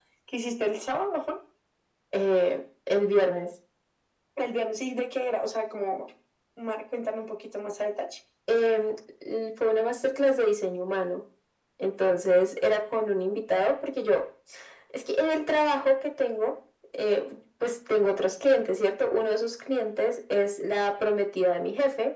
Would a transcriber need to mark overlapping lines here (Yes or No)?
No